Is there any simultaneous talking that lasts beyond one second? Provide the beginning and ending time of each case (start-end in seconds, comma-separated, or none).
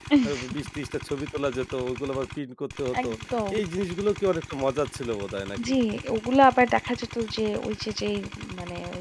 none